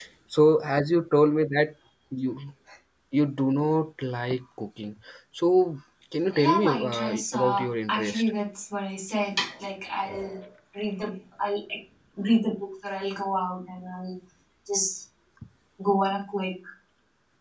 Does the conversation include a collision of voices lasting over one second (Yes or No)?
Yes